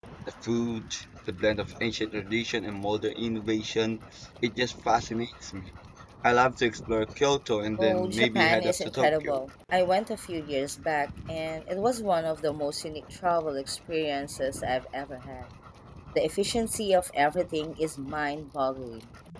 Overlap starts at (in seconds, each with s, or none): 7.8 s